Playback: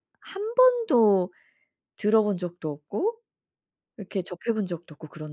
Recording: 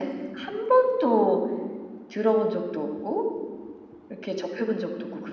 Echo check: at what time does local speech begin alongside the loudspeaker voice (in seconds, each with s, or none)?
none